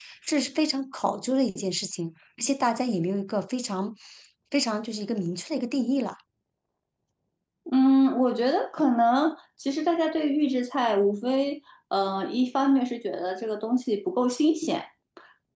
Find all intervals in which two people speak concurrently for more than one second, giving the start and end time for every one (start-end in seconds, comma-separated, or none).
none